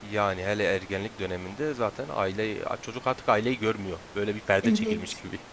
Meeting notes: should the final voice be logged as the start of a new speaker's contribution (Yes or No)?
Yes